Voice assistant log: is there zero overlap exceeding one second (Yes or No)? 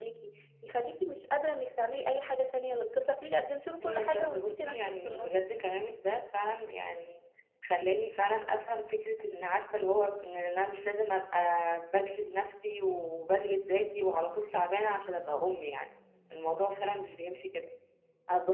No